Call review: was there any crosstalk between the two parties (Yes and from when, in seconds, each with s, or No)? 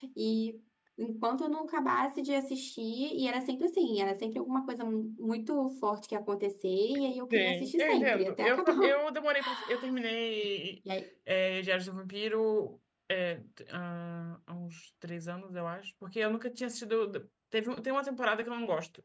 Yes, from 7.3 s